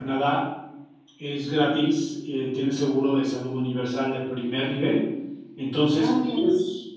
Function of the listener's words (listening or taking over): listening